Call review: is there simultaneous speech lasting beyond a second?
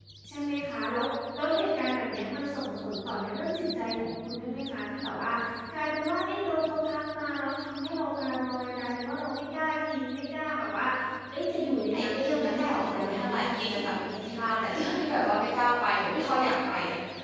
Yes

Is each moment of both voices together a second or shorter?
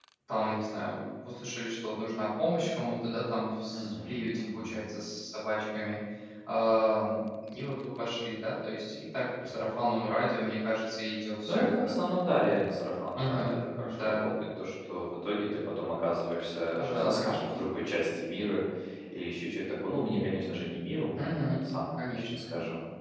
No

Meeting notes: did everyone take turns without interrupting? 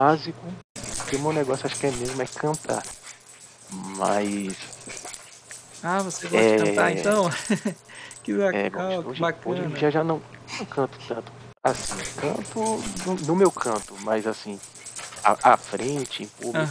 No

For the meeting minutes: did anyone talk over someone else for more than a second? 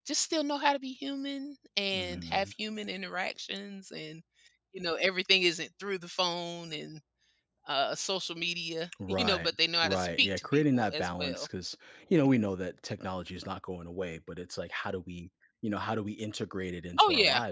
Yes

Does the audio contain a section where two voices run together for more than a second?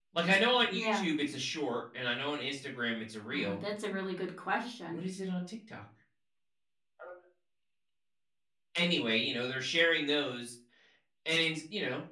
No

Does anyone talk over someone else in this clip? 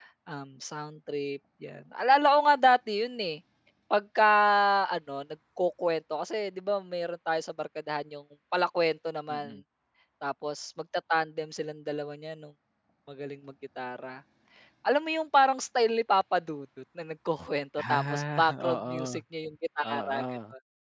Yes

